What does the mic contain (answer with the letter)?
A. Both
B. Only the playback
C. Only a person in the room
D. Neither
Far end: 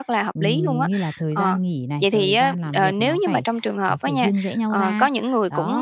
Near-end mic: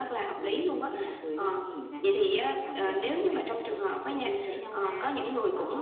B